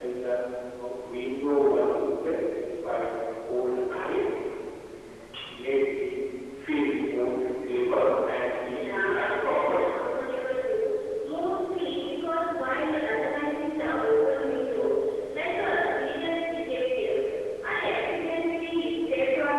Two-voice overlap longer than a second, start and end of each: 8.7-10.0

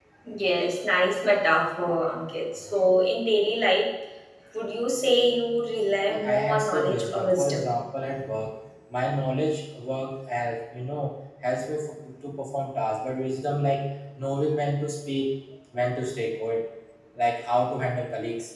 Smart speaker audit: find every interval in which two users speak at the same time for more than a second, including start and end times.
6.1-7.7

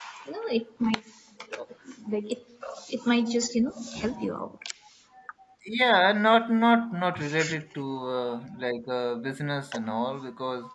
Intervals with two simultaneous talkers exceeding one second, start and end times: none

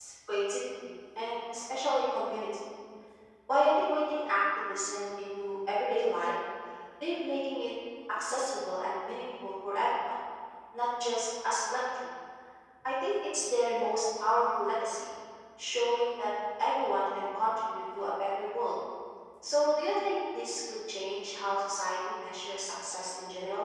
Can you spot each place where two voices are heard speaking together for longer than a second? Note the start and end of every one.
none

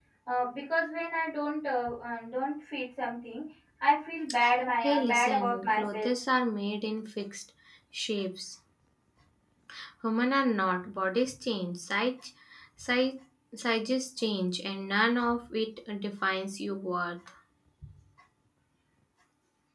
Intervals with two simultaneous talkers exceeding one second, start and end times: 4.8-6.1

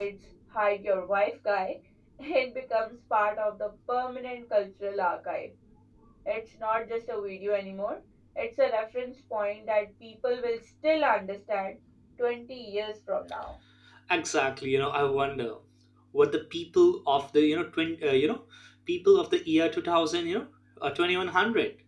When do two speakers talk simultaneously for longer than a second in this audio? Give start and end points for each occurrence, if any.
none

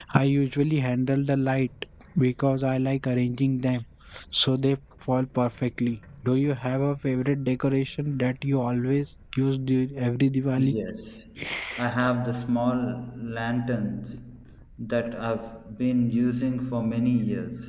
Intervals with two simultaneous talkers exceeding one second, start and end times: none

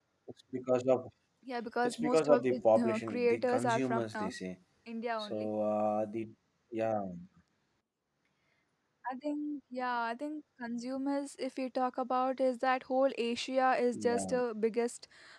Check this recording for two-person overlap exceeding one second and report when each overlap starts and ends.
1.8-4.3

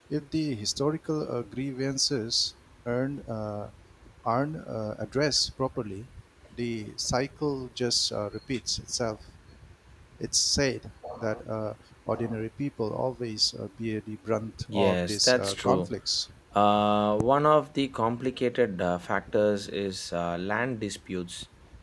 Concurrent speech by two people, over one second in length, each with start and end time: 14.7-15.9

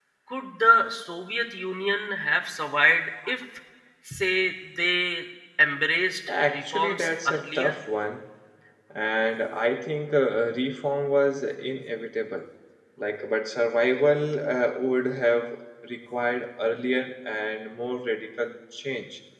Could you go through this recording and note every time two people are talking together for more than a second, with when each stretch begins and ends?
6.5-7.8

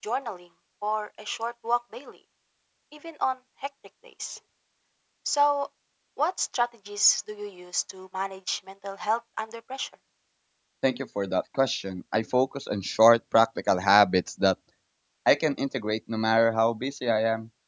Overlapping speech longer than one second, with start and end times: none

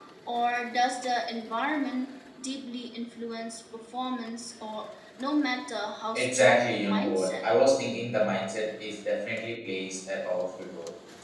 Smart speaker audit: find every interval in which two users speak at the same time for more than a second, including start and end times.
6.2-7.5

